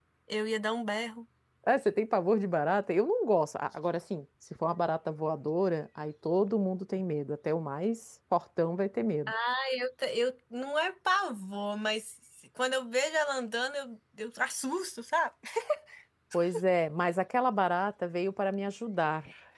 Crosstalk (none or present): none